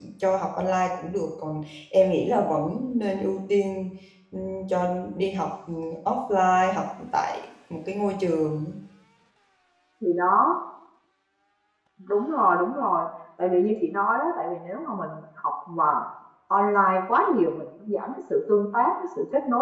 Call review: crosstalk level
none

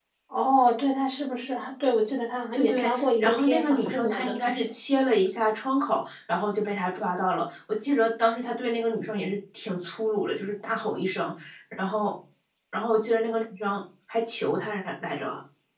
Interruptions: present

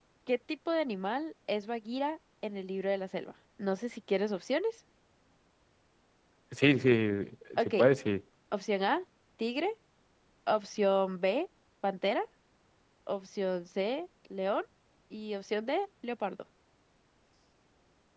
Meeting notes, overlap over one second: none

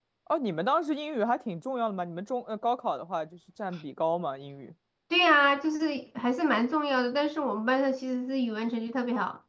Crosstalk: none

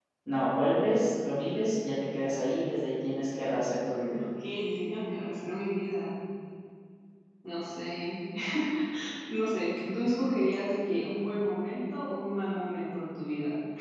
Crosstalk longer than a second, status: none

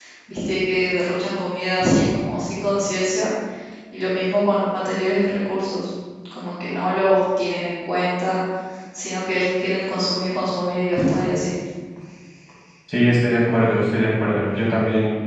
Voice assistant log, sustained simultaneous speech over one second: none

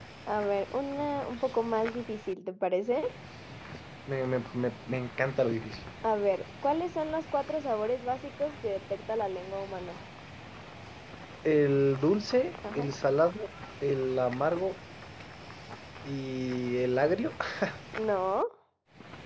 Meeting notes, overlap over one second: none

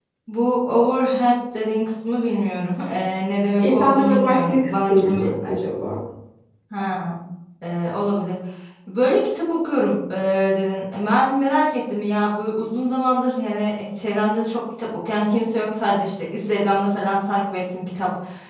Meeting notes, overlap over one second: present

